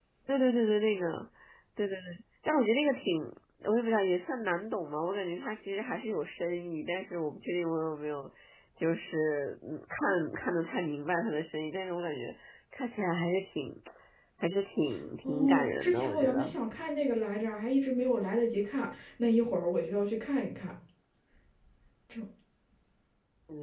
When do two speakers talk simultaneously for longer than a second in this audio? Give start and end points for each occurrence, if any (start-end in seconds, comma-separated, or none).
15.2-16.5